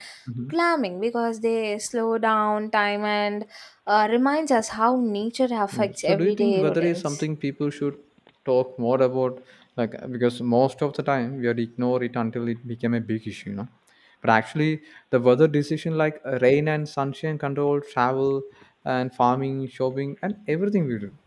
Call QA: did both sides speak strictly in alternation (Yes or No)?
No